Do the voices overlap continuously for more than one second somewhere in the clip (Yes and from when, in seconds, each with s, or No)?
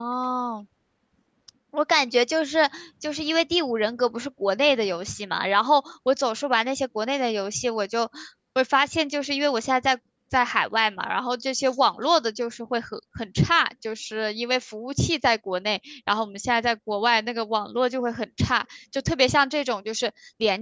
No